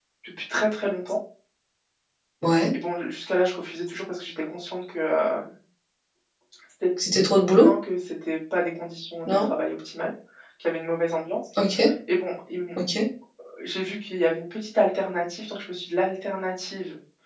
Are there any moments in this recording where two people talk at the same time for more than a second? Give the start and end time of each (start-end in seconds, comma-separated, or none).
none